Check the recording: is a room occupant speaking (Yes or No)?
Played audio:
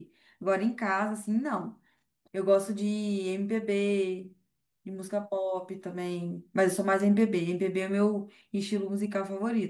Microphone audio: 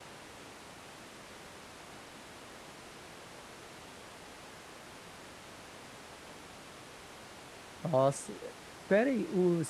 Yes